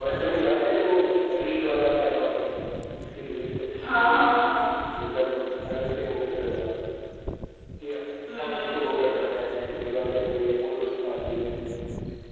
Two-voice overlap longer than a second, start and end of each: none

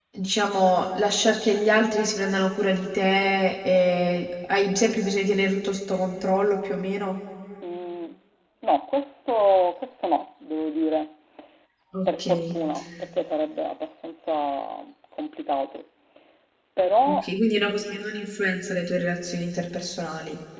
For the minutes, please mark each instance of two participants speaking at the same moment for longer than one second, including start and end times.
none

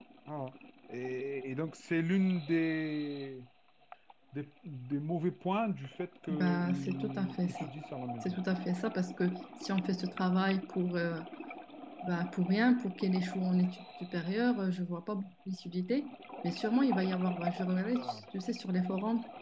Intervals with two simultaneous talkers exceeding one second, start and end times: 6.3-7.7

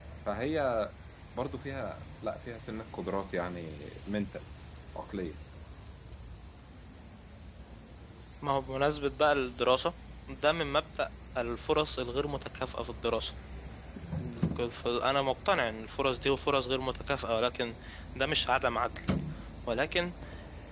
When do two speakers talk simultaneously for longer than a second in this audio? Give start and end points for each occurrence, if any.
none

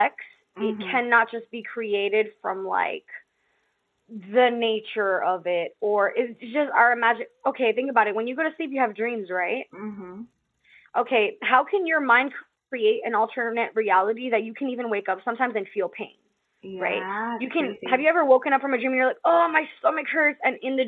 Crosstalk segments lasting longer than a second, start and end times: 16.8-18.0

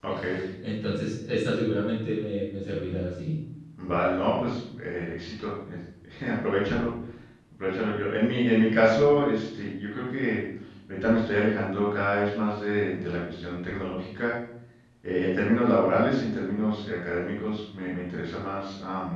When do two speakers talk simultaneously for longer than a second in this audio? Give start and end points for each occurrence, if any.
none

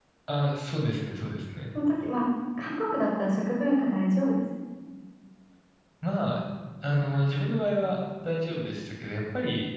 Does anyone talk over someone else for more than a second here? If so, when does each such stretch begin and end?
none

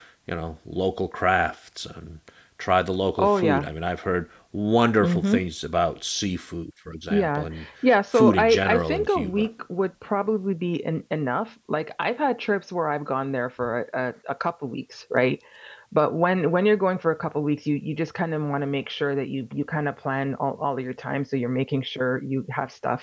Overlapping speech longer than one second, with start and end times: 8.1-9.5

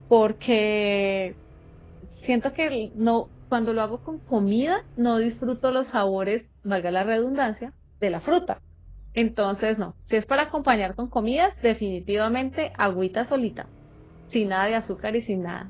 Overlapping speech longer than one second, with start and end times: none

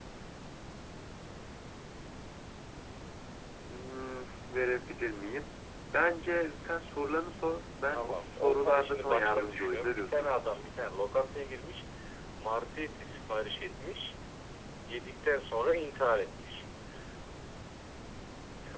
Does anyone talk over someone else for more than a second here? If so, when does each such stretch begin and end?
7.9-10.3

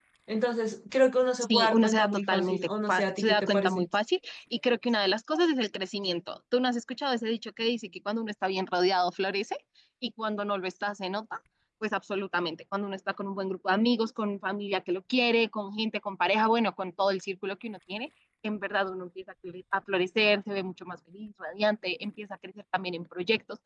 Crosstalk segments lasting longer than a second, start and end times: 1.4-3.9

